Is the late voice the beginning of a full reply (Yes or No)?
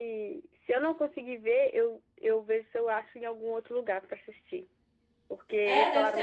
Yes